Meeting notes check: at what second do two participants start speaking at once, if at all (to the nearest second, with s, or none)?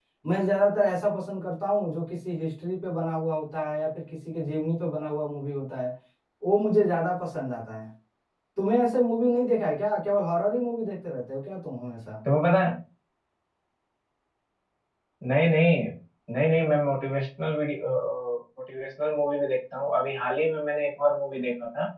none